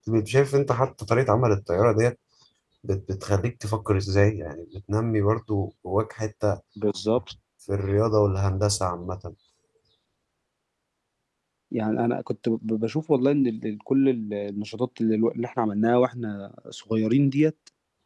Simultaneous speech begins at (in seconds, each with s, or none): none